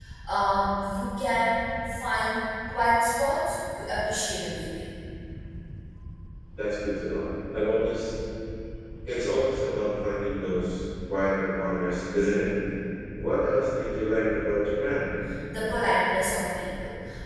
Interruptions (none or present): none